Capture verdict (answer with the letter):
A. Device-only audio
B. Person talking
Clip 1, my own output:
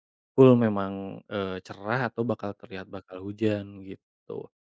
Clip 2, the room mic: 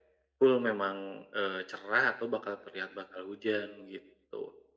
A